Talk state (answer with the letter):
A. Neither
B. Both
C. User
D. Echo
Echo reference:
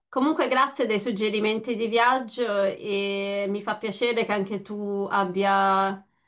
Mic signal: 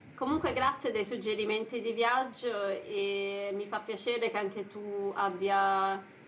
D